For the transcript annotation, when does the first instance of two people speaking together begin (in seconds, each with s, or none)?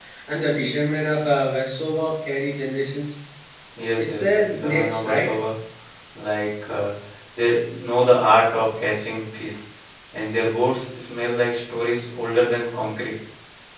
4.0 s